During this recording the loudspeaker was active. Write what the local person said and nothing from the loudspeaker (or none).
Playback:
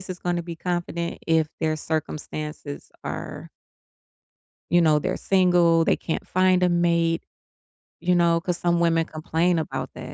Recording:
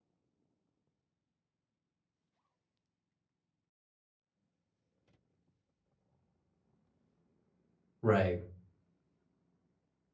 Right.